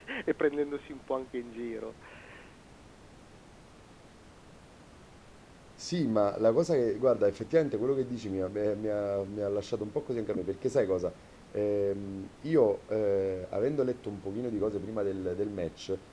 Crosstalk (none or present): none